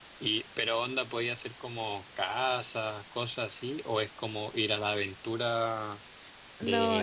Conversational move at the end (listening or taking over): taking over